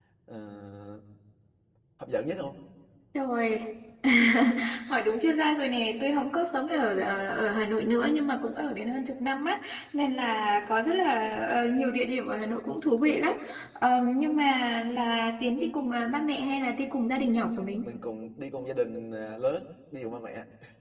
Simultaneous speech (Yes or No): No